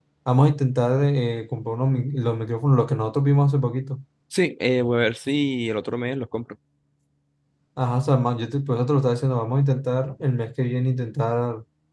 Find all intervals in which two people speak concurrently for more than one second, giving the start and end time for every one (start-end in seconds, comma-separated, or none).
none